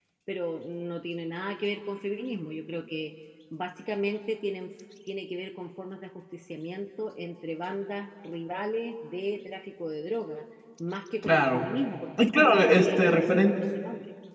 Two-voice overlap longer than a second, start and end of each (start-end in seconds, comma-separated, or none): 12.2-13.5